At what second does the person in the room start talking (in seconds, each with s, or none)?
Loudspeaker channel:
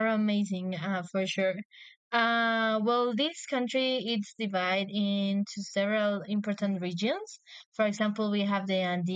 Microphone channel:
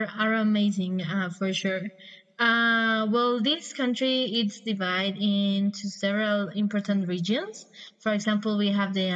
none